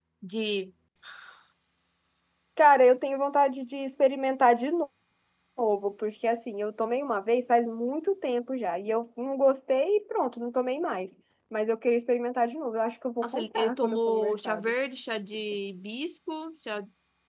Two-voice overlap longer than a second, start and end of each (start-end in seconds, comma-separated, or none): 13.2-14.7